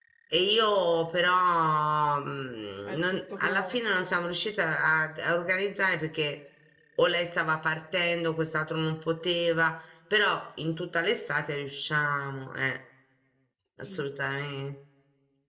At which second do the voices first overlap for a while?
3 s

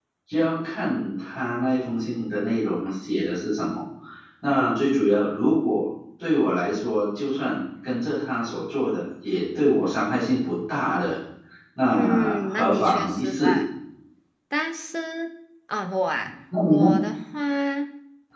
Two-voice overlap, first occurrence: 12 s

